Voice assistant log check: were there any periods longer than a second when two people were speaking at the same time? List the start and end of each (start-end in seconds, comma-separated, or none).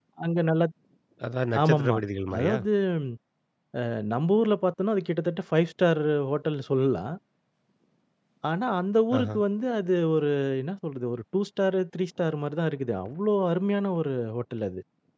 none